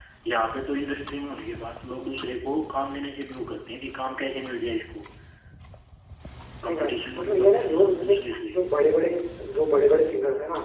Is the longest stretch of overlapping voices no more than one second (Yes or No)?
No